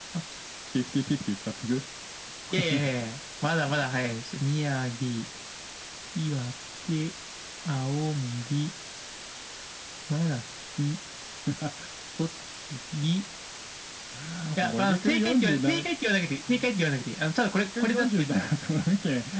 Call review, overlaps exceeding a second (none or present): present